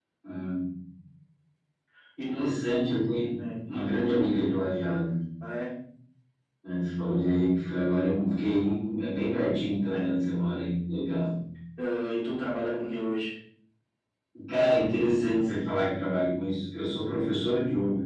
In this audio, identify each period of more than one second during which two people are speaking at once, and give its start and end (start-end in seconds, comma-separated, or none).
none